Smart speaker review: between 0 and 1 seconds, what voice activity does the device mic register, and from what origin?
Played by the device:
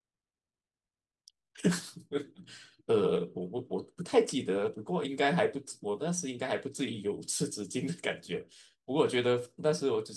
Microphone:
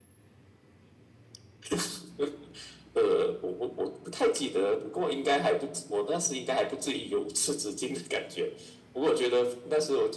neither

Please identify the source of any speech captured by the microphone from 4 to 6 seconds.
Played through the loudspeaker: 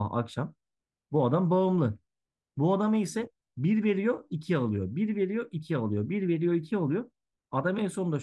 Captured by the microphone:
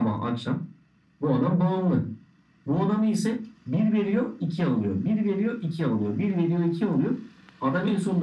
echo only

